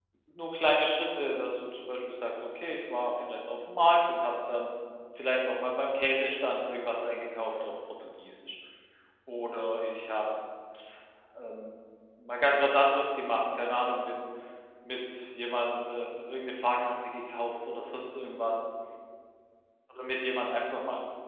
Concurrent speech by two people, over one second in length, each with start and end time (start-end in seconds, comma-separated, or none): none